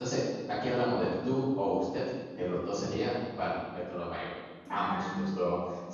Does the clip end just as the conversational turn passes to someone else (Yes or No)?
No